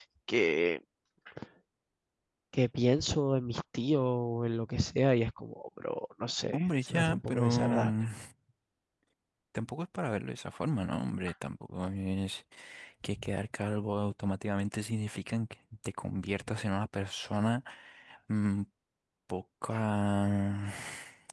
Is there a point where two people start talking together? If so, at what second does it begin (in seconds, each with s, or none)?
6.5 s